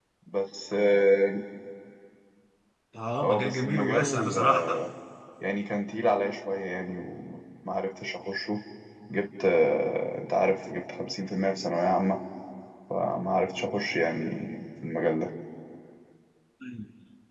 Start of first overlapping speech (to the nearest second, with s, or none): 3 s